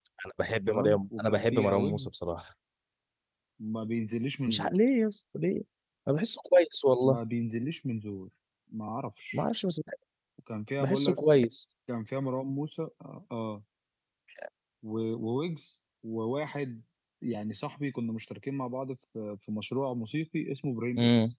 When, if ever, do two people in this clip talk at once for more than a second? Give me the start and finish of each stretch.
0.7-2.1

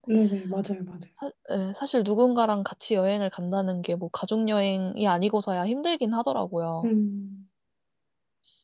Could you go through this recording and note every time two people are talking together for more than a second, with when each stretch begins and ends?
none

